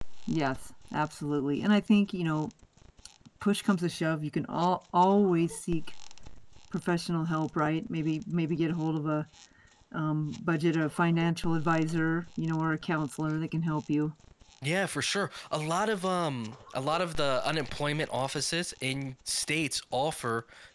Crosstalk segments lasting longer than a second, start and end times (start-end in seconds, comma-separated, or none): none